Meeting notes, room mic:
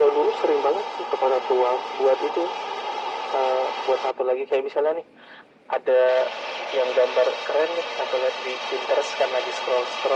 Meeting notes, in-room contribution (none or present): none